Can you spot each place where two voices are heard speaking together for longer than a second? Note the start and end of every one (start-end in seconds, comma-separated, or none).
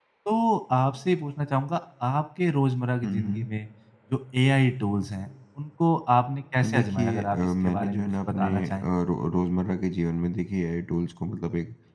6.6-8.7